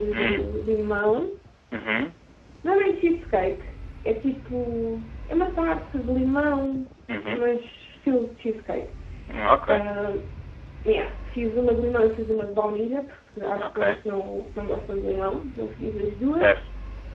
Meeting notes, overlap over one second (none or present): none